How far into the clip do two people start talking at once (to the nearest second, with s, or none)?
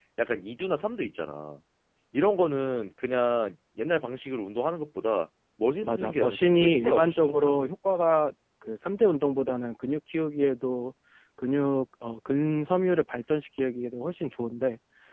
6 s